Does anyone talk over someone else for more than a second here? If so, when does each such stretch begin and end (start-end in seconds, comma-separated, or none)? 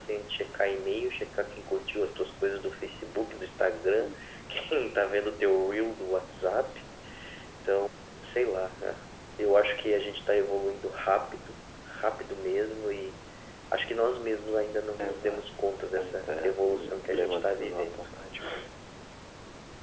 16.0-18.1